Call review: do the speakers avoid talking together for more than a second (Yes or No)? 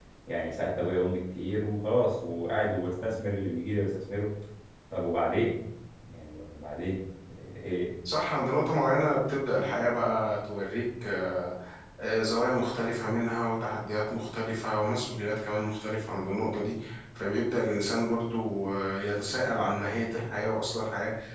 Yes